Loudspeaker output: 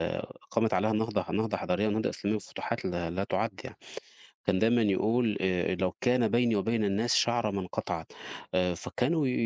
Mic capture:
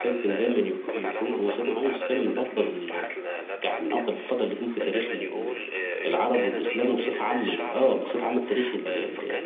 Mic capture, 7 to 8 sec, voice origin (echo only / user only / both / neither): both